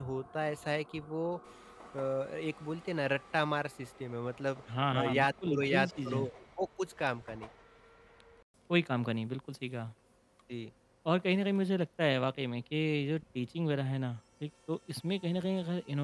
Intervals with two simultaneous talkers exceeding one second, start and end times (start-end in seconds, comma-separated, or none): 4.9-6.2